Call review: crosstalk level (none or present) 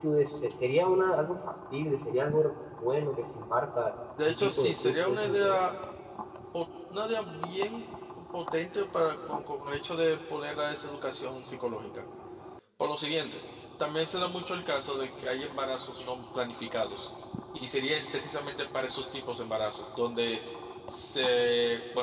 present